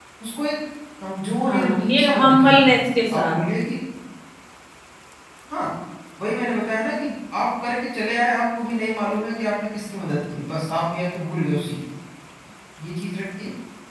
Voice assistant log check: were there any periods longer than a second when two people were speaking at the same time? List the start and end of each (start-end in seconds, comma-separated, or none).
1.4-2.7